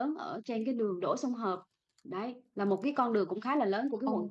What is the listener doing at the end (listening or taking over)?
taking over